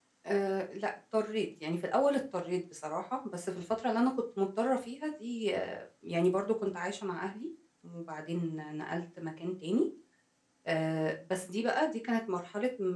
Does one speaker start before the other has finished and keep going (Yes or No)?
No